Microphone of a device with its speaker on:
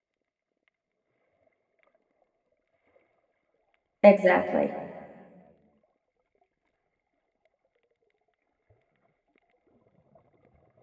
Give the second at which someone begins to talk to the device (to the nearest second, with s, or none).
4 s